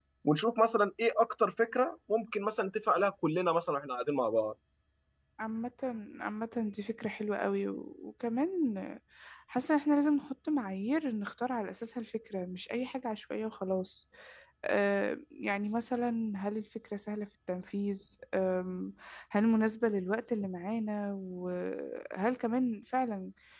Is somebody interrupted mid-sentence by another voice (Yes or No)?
No